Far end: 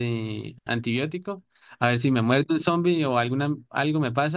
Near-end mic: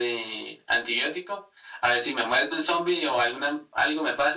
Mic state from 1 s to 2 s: echo only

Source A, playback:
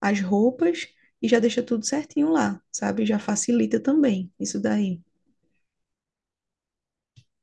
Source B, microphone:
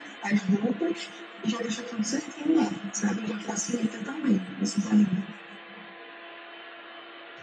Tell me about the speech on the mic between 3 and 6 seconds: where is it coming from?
echo only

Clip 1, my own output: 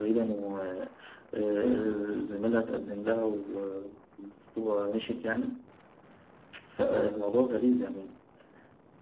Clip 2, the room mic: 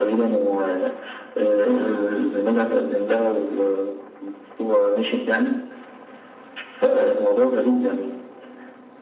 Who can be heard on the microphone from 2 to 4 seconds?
echo only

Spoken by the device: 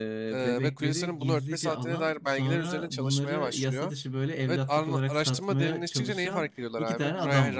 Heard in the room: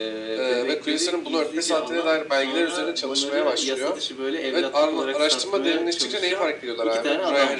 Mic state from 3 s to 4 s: echo only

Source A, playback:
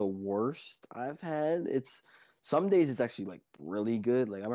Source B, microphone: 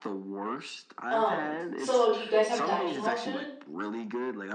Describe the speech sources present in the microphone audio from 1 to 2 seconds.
both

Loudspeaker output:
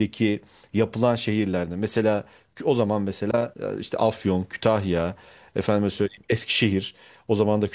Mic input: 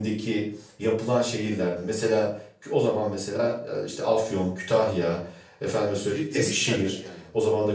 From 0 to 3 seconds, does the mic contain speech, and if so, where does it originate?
echo only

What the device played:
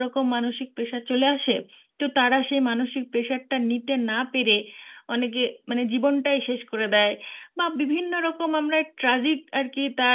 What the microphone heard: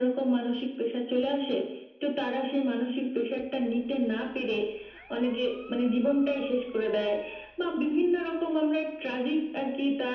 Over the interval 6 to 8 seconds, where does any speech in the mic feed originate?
echo only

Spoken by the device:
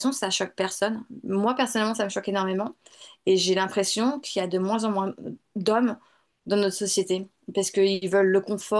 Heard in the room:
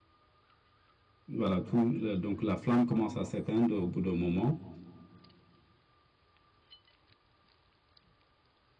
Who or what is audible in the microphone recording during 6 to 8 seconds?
neither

